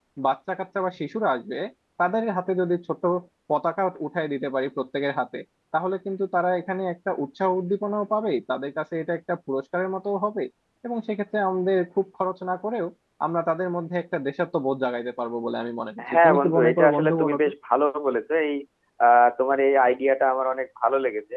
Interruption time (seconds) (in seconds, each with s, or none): 16.0 s